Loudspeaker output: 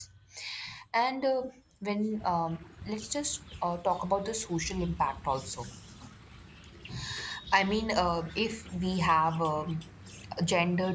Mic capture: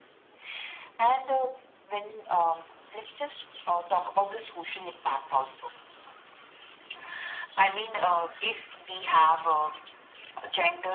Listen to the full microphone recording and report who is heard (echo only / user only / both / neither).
echo only